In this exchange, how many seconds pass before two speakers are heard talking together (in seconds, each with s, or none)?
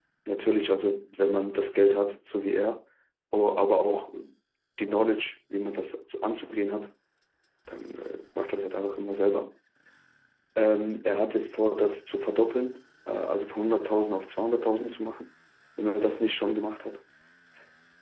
none